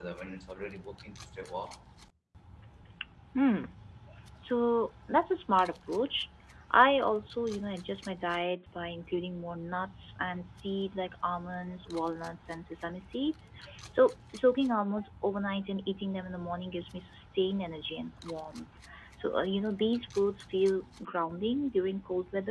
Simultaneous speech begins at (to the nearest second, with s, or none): none